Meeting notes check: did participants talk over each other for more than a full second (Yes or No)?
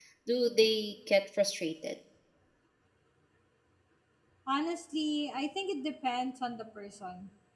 No